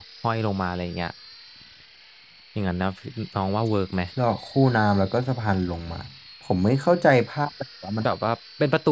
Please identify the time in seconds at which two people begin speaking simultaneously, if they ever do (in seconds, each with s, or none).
none